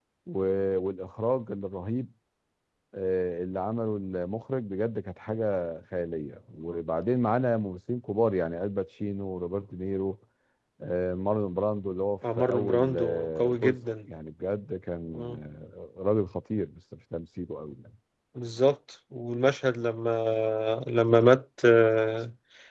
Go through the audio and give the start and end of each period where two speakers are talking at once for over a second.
12.4-13.8

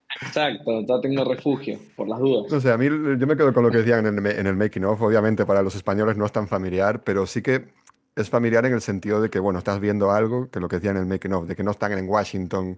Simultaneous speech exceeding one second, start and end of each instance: none

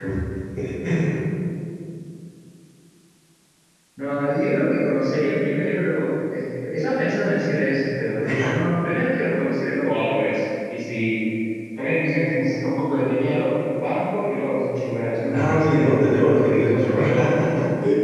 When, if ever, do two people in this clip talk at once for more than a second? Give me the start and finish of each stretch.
15.3-17.3

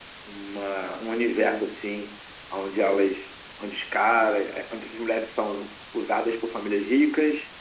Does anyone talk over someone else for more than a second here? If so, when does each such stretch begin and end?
none

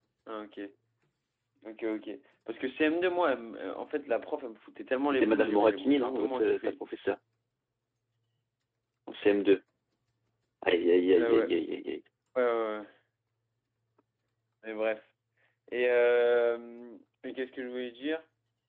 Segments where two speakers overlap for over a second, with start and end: 5.1-6.7

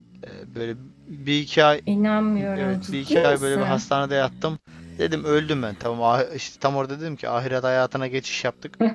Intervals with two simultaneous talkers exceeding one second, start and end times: 2.6-3.9

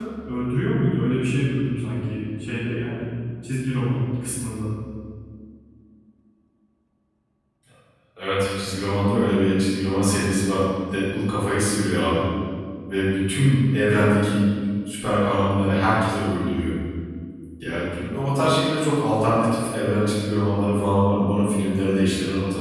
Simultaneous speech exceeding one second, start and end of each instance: none

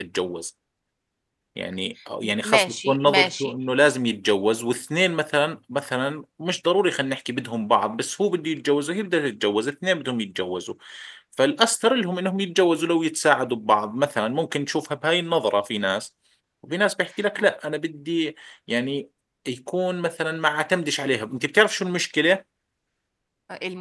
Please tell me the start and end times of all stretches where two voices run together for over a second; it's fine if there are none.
2.2-3.5

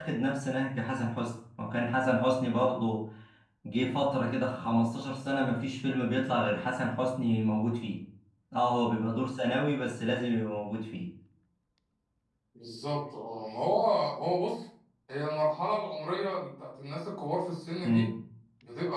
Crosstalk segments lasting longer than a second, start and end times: none

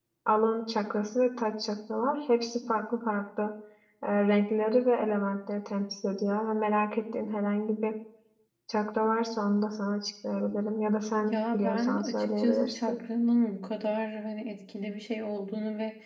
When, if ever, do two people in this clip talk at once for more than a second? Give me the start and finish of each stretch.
11.3-13.0

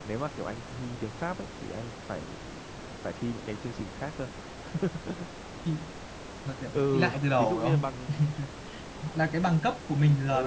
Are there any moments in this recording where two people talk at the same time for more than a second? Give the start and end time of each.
6.7-7.9

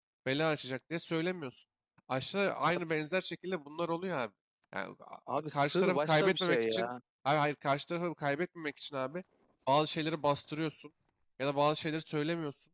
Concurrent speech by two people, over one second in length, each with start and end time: 5.3-6.9

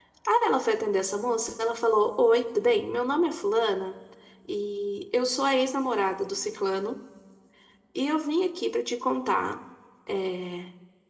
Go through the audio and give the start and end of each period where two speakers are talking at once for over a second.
none

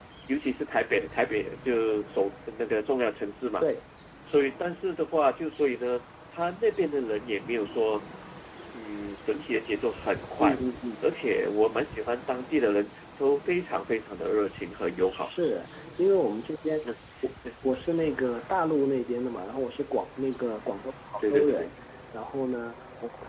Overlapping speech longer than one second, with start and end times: none

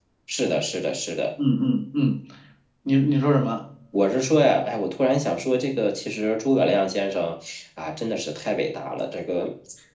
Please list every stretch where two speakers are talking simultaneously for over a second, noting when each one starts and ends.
none

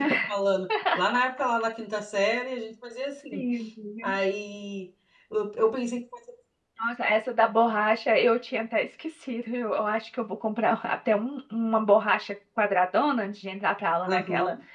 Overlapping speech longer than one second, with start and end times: none

